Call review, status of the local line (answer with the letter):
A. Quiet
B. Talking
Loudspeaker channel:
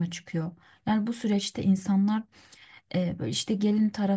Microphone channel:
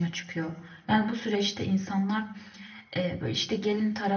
A